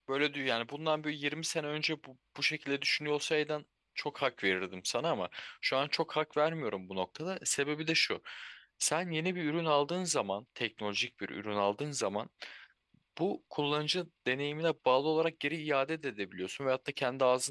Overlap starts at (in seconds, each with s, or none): none